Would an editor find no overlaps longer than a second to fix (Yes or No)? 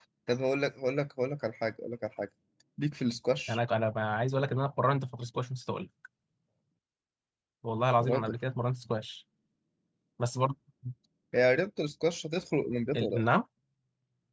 Yes